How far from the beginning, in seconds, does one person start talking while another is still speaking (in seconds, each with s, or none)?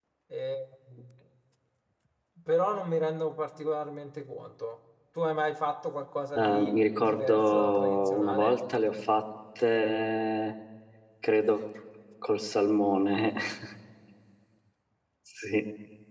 6.3 s